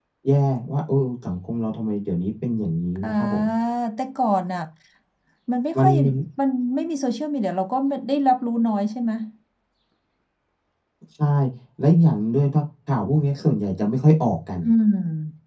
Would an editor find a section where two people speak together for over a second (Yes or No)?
No